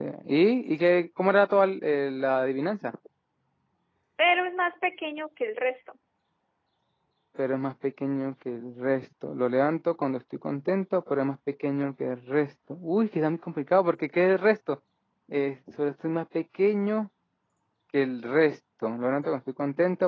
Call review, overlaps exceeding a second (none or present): none